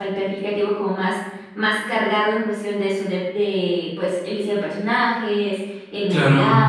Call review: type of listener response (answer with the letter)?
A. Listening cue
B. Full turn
A